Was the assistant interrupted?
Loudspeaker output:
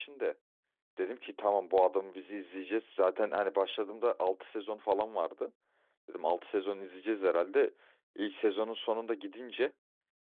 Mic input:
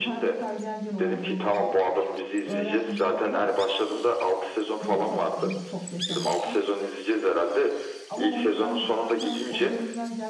Yes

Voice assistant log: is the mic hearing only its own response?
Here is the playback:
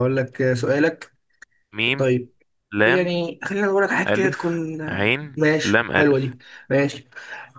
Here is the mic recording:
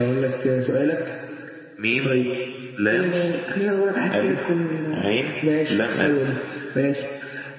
Yes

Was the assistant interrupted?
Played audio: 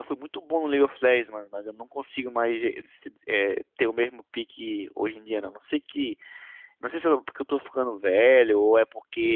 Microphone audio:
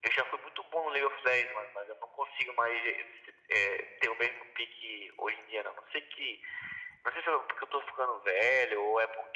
No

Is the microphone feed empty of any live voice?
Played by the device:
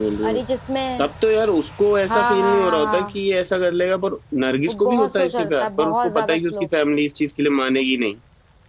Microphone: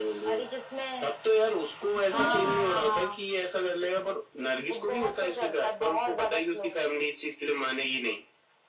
No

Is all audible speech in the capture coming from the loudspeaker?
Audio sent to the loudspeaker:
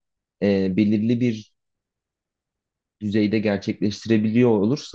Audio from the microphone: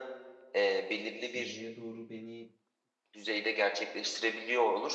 No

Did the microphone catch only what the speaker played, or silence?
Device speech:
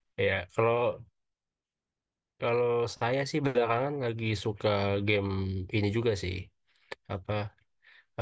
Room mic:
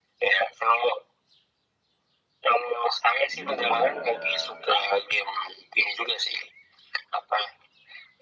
No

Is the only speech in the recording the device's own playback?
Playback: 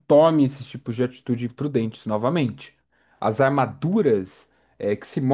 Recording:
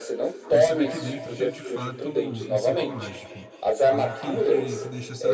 No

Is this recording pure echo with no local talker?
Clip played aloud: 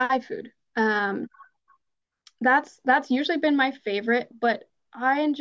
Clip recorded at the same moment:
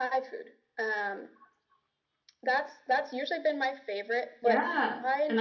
No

